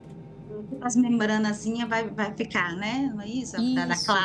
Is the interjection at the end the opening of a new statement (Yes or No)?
Yes